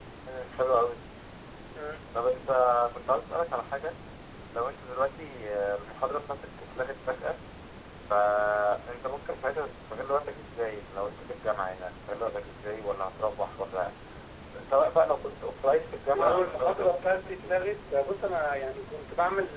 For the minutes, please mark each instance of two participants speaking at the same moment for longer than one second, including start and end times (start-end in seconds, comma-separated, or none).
16.1-17.5